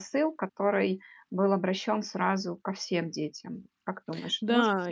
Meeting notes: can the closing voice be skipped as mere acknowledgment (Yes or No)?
No